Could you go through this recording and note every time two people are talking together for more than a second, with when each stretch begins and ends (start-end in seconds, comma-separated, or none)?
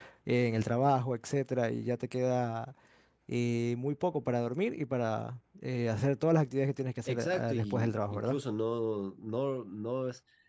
7.1-8.4